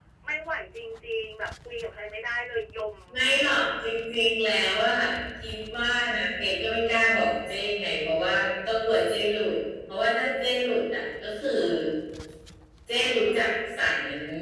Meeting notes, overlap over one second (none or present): none